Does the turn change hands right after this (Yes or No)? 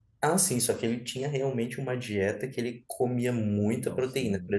No